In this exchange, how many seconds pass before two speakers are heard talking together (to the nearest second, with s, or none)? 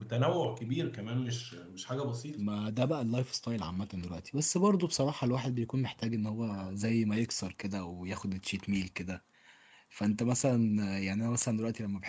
none